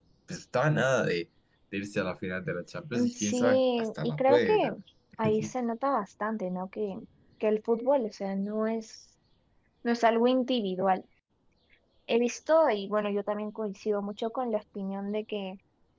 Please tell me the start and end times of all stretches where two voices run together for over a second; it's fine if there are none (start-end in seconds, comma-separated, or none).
2.9-4.8